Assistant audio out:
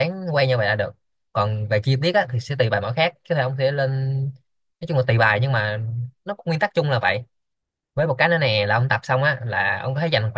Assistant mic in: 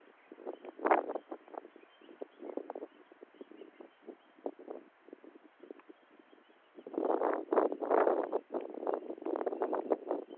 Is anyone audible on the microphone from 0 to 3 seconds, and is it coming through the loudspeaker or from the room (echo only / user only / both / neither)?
neither